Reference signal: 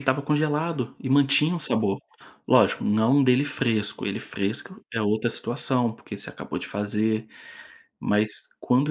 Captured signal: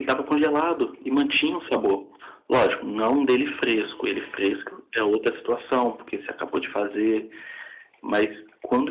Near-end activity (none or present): none